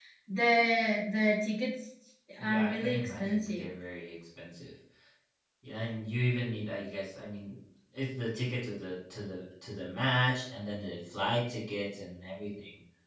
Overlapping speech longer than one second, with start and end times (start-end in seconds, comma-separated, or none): 2.4-3.7